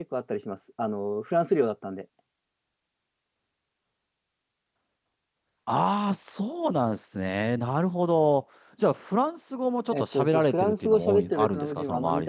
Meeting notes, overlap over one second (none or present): present